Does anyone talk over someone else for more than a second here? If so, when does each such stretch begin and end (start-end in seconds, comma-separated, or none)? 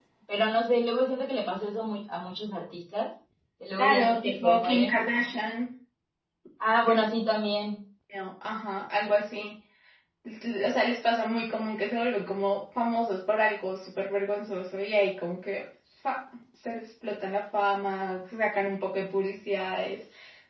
3.8-5.0